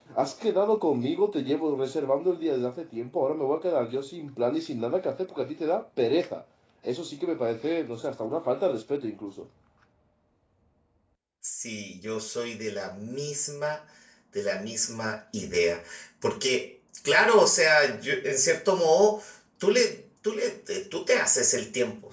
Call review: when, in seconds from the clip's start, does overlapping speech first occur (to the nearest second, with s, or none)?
none